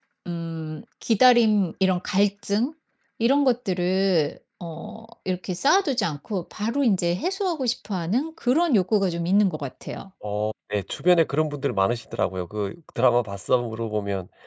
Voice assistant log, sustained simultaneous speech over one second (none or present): none